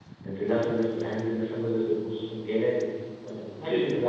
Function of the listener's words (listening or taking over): taking over